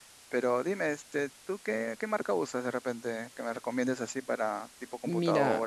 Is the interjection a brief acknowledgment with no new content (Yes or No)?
No